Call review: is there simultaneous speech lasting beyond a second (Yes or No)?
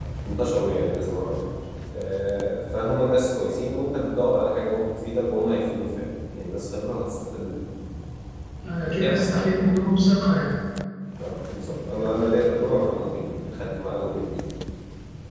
No